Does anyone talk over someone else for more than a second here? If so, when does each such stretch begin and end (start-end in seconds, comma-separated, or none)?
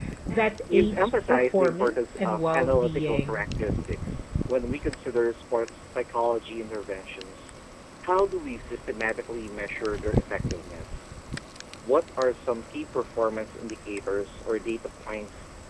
0.7-3.4